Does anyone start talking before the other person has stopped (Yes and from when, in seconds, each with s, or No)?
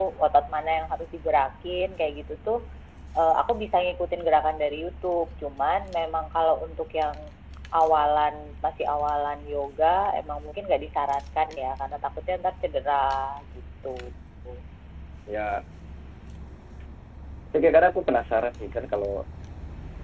No